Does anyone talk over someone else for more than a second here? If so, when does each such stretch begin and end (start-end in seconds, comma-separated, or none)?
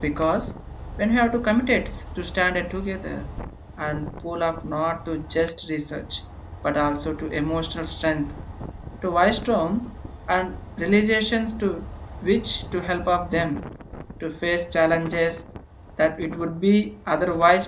none